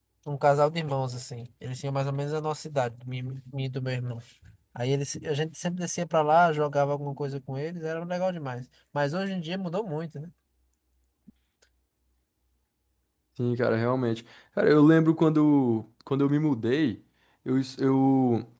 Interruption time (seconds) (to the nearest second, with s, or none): none